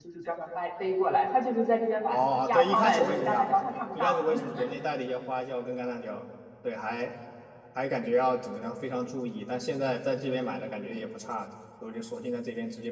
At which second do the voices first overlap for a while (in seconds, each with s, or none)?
2.1 s